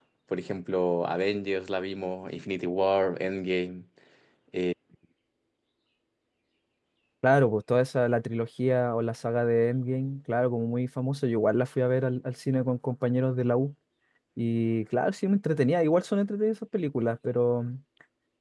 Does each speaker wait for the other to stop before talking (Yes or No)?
Yes